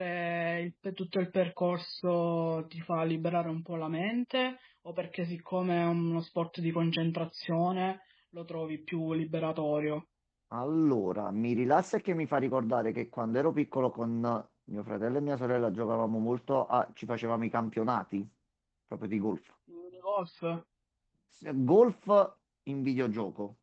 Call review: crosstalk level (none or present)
none